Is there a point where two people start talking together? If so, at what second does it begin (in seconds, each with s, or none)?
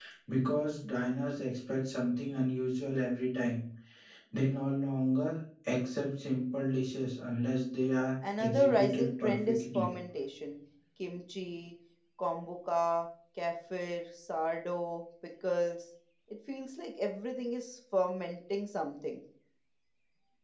8.2 s